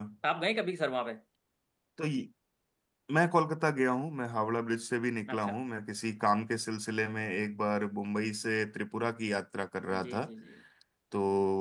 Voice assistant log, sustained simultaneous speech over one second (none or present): none